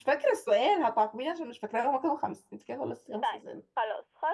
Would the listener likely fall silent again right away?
No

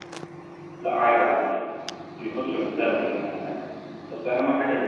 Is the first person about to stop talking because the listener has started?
No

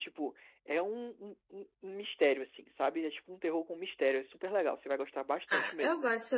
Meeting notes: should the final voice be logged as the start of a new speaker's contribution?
Yes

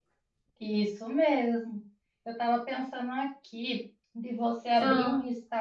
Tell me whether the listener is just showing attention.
Yes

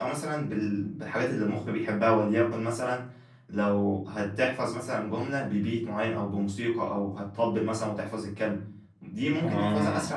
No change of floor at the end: Yes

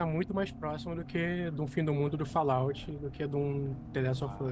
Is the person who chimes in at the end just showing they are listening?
No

